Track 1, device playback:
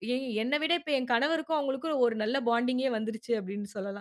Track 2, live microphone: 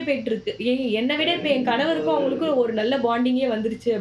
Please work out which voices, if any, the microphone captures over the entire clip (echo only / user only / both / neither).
both